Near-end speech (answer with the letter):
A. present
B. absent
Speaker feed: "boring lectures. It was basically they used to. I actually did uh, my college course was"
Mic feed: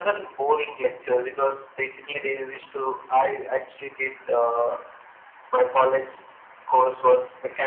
B